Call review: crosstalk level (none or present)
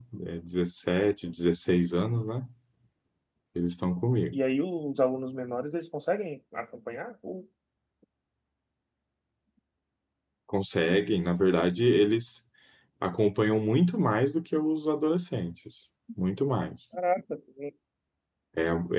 none